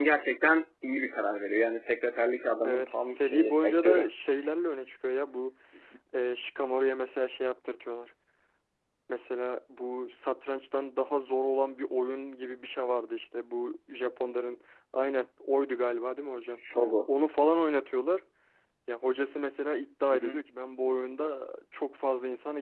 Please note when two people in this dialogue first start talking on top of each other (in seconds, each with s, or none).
2.6 s